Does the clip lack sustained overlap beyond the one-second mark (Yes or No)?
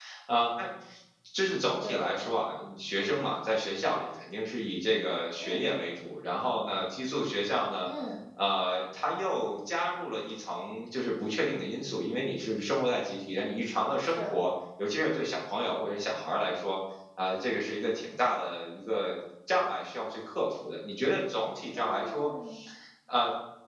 Yes